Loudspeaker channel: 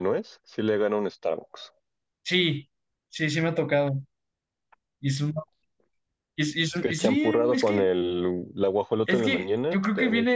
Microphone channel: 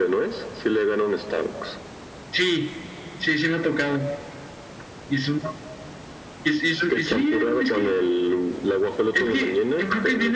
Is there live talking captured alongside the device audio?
No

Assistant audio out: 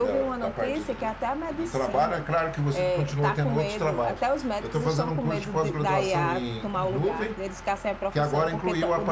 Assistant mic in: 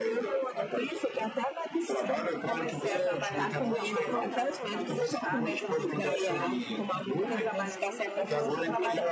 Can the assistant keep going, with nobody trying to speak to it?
No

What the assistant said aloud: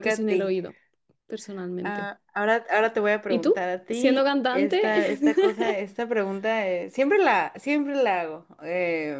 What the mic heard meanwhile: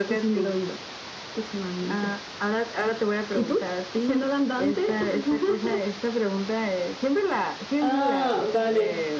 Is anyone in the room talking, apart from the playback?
Yes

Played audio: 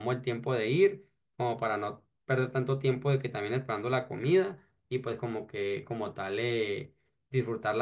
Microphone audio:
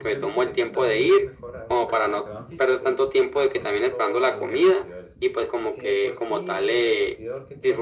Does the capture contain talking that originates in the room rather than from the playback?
Yes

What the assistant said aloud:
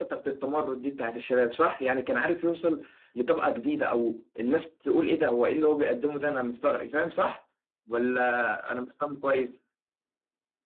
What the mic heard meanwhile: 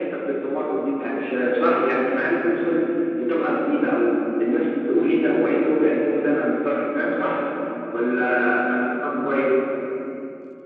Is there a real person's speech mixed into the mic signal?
No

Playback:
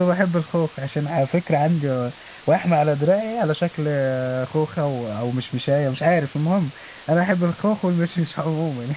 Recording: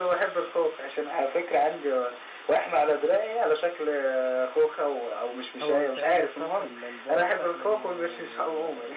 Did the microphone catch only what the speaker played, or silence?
No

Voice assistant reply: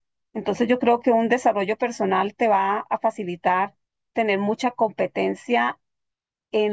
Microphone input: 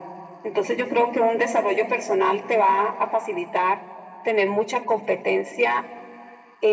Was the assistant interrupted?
No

